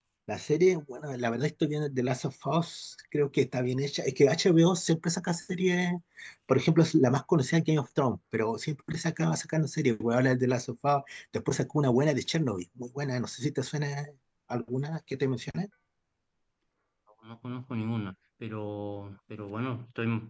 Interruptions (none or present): none